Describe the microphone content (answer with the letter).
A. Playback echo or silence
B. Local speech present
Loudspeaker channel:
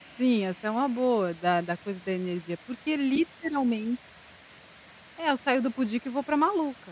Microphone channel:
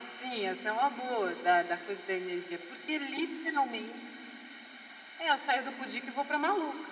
A